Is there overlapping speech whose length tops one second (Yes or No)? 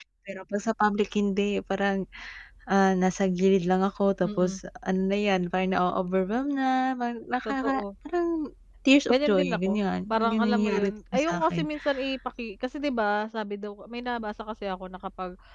Yes